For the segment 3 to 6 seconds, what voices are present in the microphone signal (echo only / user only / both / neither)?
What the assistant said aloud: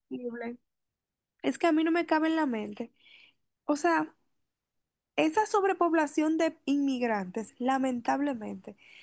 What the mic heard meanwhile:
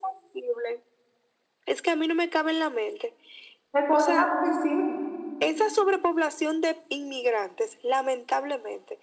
both